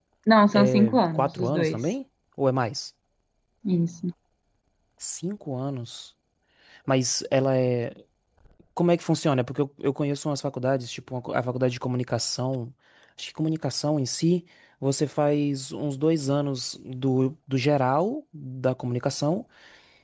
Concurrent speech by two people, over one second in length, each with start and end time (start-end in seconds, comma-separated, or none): 0.5-1.8